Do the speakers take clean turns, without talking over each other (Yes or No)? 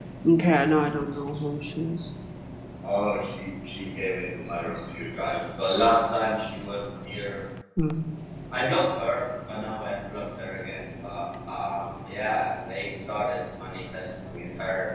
Yes